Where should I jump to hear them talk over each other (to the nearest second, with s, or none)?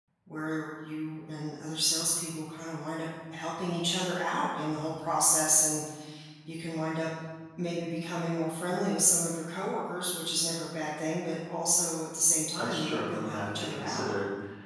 13 s